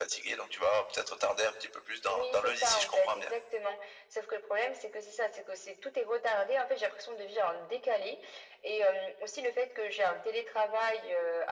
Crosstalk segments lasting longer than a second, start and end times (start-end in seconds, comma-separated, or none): 2.1-3.4